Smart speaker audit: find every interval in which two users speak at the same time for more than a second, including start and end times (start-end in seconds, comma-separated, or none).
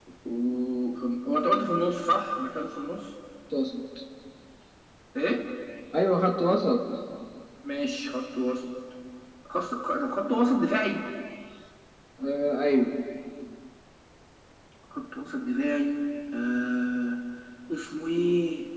none